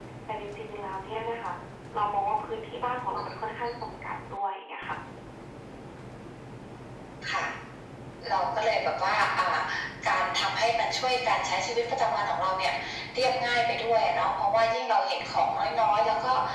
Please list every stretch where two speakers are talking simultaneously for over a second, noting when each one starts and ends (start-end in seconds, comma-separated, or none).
none